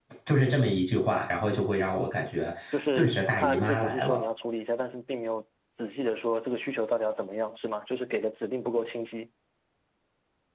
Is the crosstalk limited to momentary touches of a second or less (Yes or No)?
No